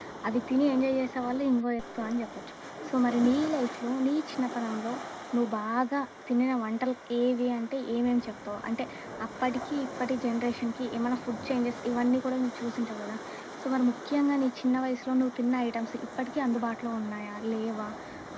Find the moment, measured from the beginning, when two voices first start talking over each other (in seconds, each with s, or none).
none